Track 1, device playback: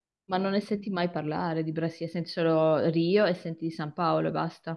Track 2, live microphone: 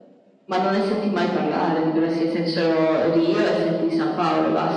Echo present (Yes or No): Yes